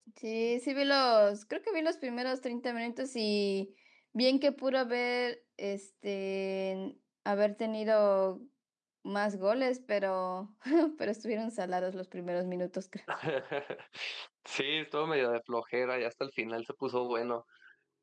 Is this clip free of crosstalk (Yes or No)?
Yes